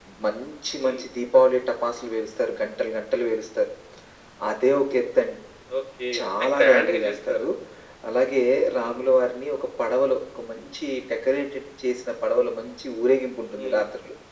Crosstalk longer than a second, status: present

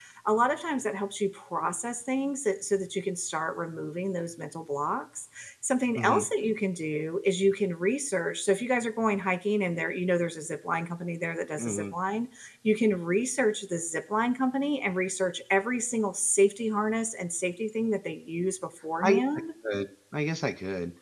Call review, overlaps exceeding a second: none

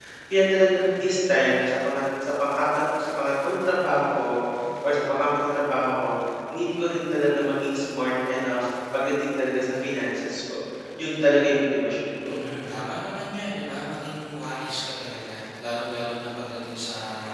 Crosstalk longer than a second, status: none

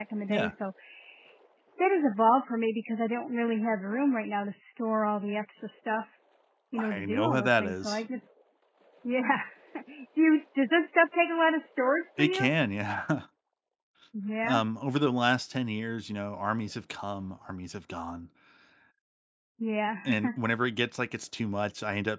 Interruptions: present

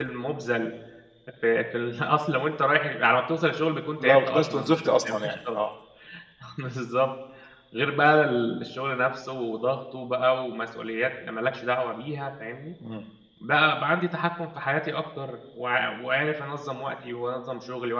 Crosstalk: present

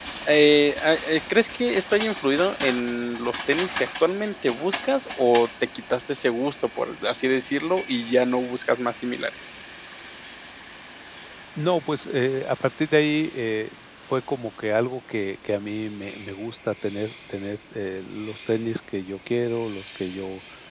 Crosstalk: none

